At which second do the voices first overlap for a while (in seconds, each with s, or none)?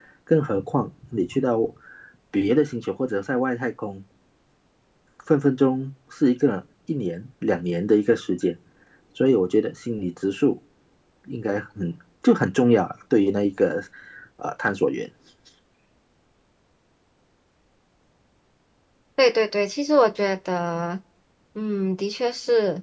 none